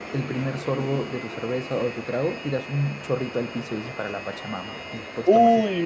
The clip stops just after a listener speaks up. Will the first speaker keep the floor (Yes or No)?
No